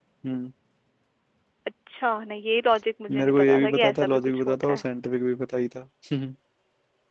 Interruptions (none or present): present